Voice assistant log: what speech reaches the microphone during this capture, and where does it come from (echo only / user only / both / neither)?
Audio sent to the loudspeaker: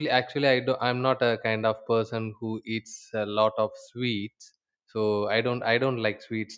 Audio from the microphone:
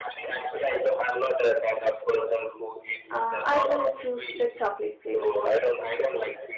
both